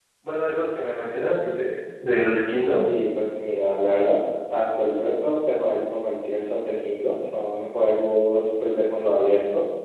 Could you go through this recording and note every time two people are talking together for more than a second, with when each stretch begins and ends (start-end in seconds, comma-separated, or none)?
none